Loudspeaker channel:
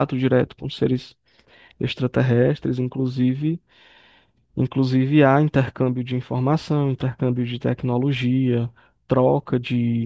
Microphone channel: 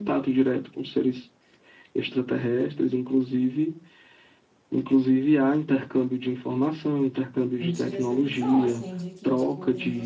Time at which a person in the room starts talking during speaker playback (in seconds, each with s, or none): 7.6 s